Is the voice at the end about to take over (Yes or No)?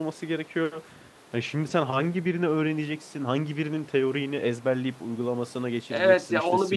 Yes